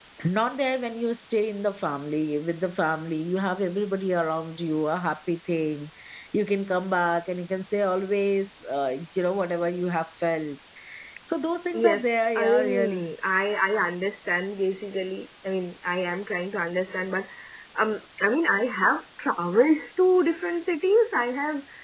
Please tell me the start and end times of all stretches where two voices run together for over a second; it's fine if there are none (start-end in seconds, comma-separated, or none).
11.7-13.1